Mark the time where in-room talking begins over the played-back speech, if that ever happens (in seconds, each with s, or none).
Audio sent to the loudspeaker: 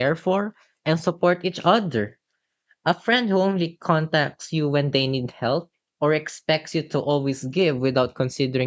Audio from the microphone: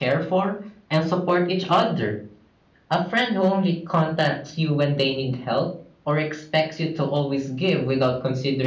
none